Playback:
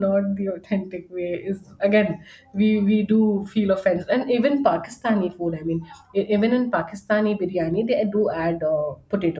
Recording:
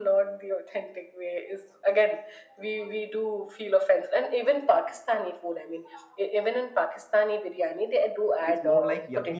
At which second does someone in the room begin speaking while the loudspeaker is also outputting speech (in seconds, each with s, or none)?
8.4 s